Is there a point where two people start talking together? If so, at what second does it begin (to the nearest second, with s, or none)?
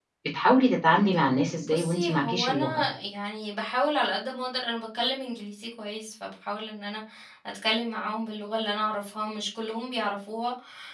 2 s